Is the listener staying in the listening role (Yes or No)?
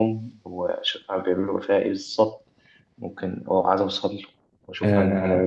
No